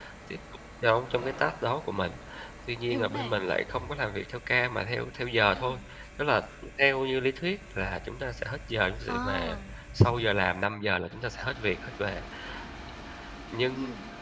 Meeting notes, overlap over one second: none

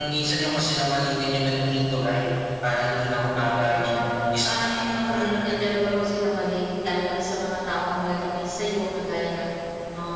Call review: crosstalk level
present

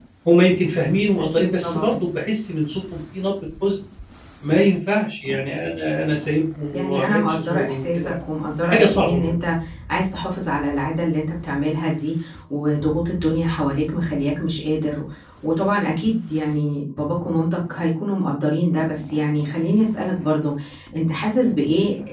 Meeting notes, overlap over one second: present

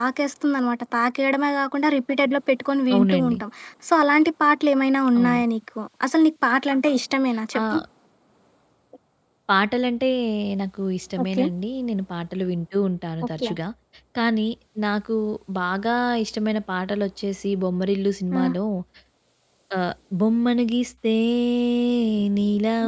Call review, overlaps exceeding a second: none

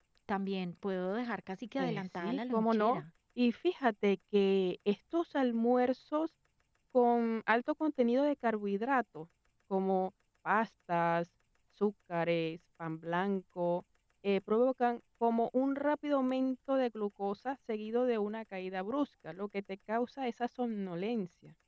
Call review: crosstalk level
present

